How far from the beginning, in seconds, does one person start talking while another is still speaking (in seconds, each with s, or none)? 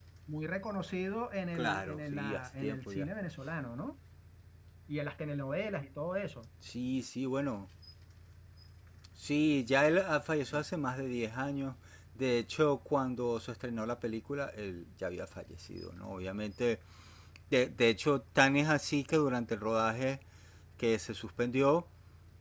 1.5 s